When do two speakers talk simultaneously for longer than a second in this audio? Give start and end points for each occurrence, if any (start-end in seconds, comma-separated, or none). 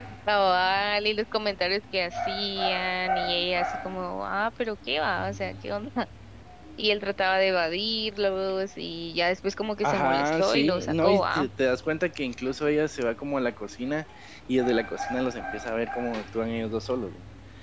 9.8-11.5